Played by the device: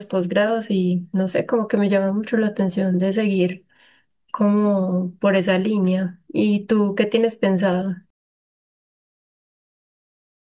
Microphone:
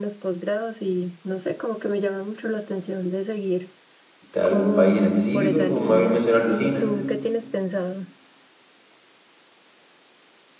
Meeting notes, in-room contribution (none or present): present